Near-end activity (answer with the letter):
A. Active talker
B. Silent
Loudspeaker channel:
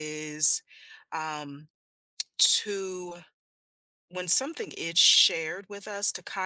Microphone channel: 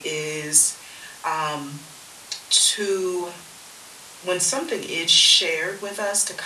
B